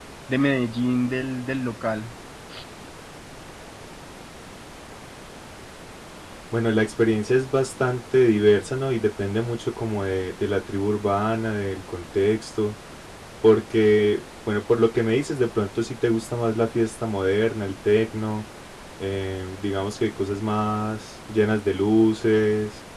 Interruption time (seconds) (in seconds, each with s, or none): none